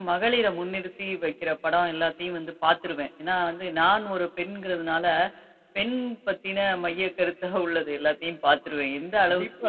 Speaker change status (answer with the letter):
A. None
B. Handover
B